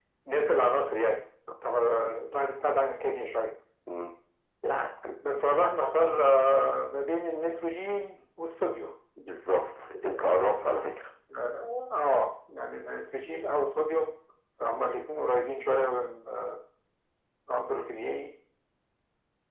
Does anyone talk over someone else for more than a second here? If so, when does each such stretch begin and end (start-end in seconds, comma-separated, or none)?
none